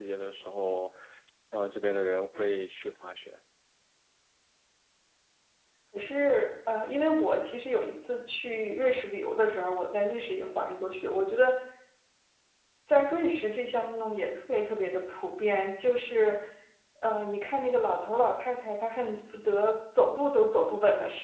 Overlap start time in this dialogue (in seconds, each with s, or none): none